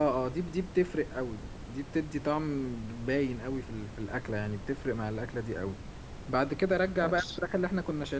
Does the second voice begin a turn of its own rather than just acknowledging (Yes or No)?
No